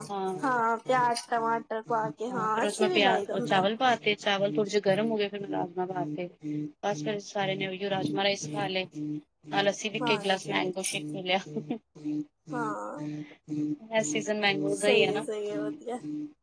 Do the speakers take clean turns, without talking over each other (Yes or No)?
No